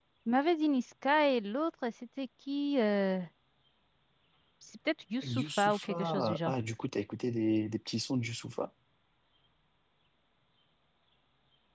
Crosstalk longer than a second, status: present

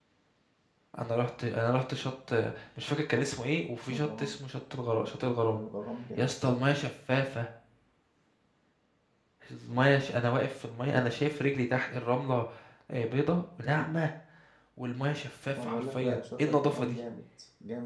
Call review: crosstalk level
present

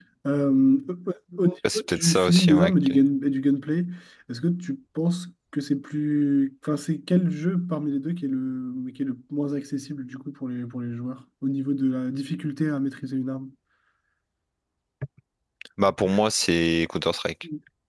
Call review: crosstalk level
present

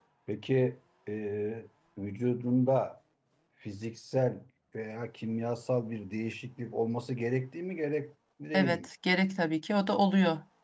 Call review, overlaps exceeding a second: none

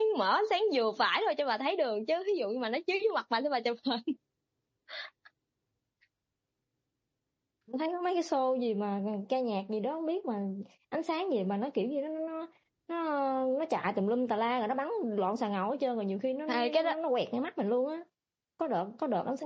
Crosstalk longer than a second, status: none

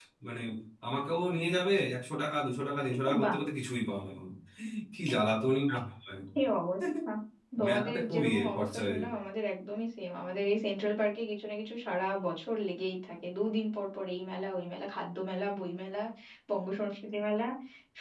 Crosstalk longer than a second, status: present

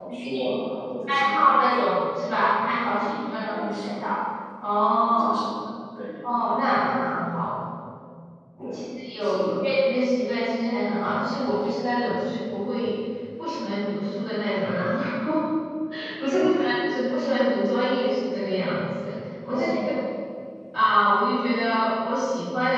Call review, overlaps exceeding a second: present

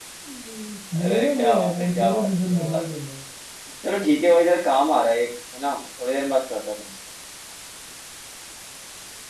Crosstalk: present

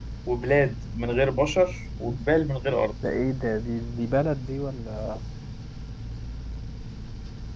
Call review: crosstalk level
none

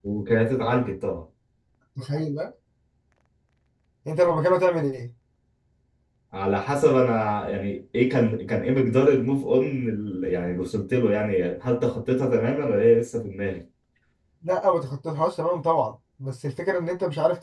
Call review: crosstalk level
none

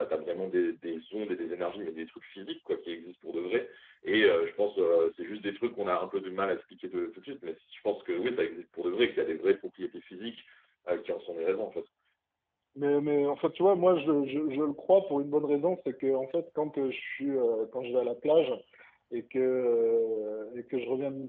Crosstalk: none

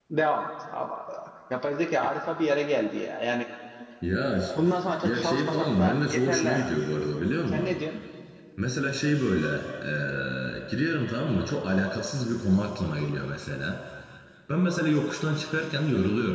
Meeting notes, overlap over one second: present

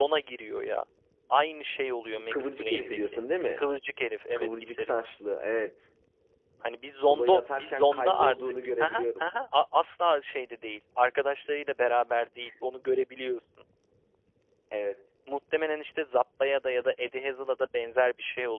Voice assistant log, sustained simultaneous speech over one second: present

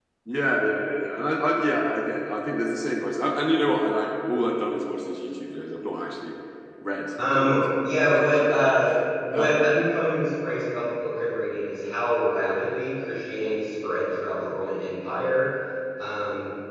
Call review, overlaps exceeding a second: present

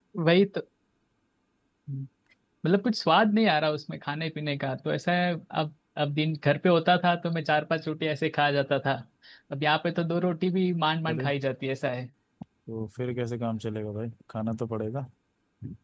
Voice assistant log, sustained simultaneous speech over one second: none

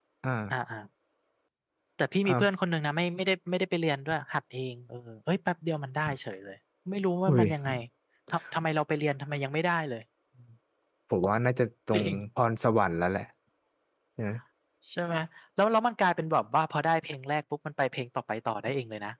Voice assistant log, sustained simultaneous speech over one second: none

